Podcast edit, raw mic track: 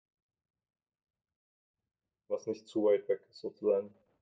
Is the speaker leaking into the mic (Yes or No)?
No